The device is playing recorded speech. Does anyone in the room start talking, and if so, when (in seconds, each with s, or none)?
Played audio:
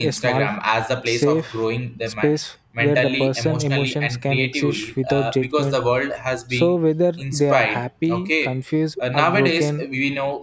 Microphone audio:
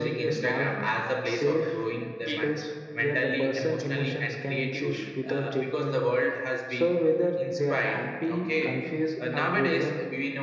2.2 s